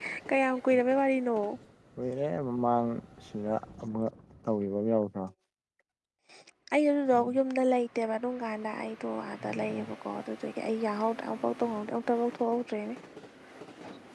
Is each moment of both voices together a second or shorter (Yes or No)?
Yes